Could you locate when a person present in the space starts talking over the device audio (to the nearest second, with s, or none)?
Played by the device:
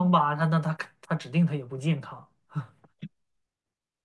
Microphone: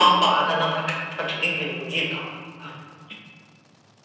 none